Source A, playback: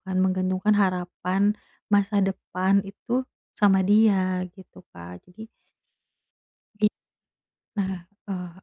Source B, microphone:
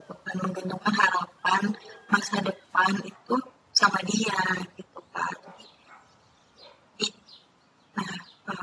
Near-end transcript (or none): none